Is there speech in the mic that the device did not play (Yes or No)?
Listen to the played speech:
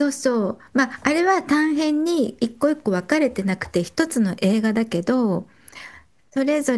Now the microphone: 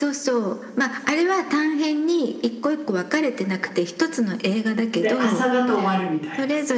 Yes